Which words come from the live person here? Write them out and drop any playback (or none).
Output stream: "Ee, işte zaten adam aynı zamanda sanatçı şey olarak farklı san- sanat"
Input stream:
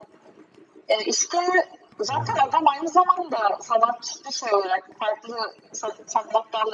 Aa.